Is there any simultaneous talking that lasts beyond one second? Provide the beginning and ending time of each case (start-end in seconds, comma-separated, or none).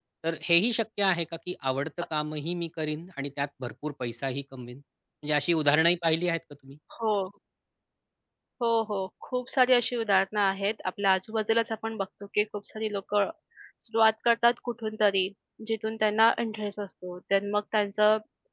none